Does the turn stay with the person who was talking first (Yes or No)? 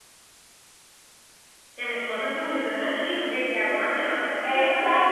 No